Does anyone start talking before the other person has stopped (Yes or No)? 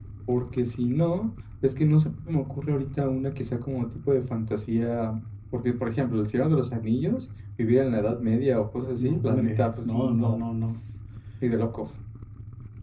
Yes